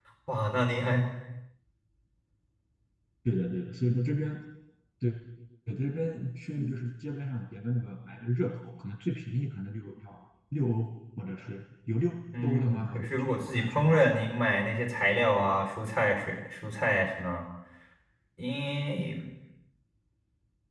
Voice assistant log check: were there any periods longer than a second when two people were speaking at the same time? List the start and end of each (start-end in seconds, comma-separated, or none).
12.4-14.0